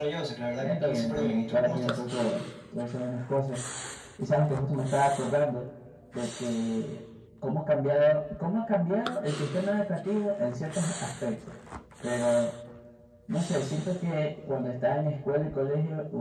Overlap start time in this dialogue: 1 s

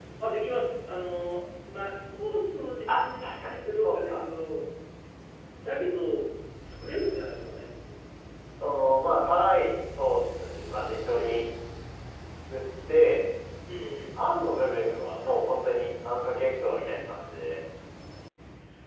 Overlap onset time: 3 s

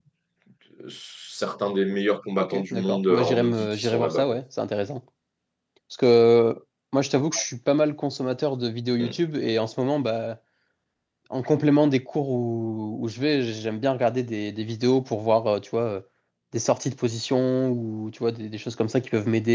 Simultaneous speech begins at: 2 s

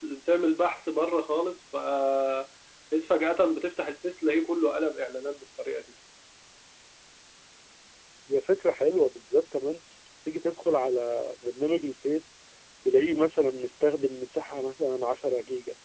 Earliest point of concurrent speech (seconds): none

